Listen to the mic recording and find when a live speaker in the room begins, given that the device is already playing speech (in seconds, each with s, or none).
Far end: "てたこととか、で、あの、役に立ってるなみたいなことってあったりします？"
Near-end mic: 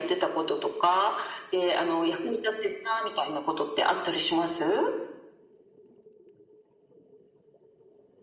none